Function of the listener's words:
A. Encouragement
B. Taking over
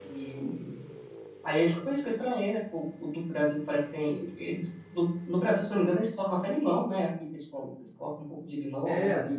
B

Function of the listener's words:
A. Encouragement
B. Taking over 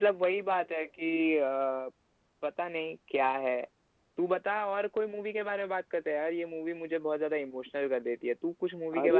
B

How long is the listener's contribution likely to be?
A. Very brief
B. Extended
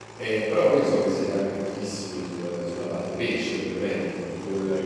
A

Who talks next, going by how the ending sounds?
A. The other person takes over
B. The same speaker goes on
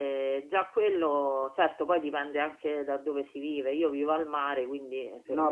A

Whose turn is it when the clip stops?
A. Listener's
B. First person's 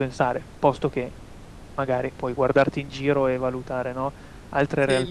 A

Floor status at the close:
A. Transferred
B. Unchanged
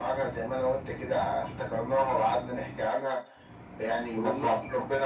B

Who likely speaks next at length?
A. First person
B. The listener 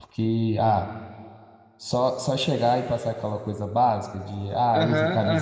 B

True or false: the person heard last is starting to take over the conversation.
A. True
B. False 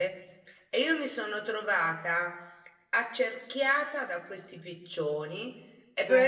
B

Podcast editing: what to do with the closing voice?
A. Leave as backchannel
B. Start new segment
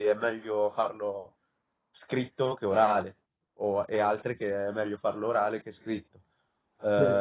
A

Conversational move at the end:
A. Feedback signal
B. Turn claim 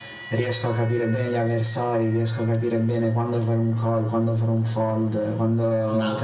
B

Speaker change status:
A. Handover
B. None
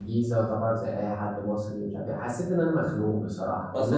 A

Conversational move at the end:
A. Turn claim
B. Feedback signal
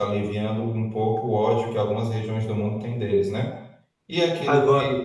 B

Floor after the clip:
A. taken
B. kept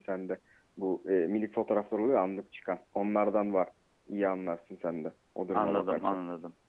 A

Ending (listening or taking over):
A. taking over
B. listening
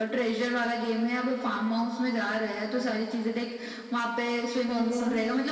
B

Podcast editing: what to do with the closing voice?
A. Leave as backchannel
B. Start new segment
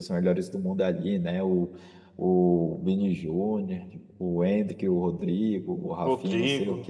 A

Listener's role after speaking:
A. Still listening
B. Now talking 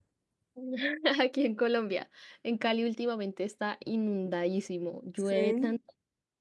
A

